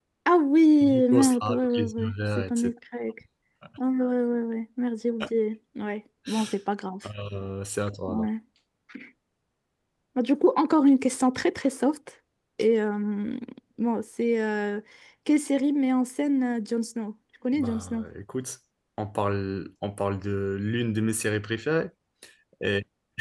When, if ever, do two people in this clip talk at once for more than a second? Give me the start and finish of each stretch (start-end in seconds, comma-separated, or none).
0.8-2.7